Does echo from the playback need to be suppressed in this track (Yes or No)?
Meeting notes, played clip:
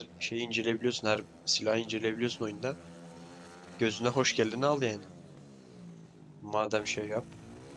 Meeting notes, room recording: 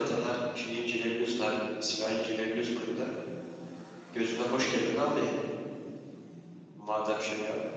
Yes